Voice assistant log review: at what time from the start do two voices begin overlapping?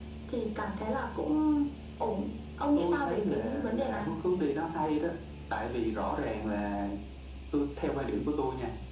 2.8 s

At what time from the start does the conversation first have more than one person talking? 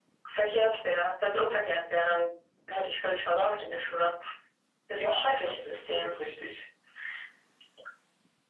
4.9 s

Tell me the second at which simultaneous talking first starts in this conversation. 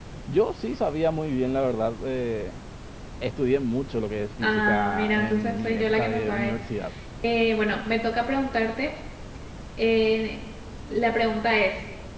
4.4 s

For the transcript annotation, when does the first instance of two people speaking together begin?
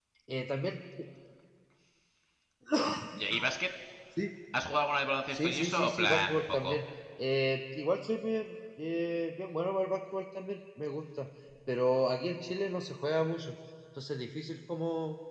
5.3 s

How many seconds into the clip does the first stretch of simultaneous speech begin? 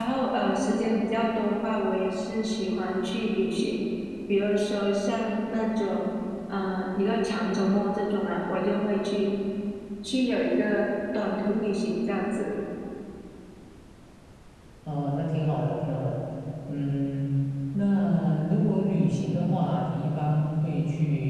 none

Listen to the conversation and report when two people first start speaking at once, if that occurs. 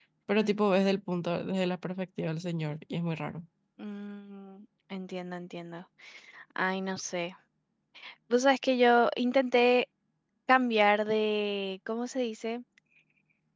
none

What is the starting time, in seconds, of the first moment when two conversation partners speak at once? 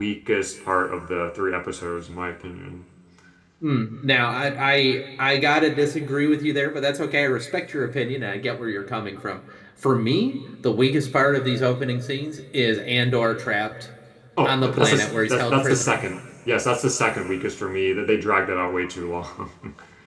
14.4 s

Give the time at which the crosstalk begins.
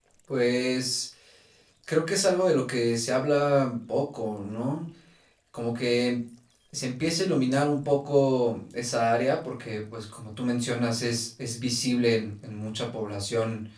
none

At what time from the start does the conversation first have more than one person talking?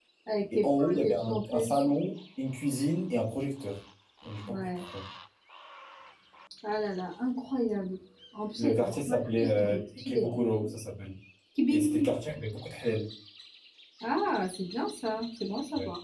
0.6 s

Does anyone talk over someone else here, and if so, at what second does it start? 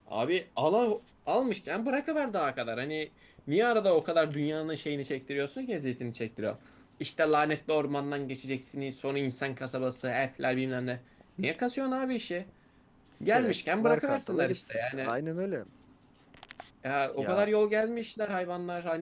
13.3 s

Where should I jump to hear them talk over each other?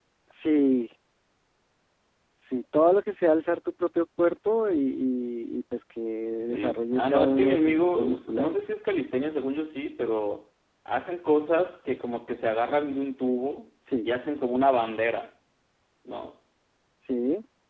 6.4 s

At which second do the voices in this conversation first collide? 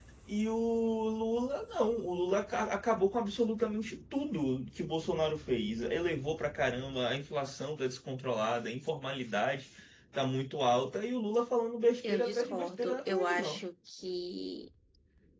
12.0 s

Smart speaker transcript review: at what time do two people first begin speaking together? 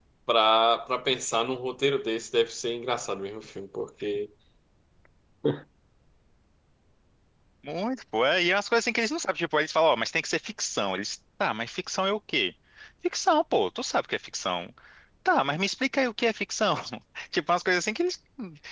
none

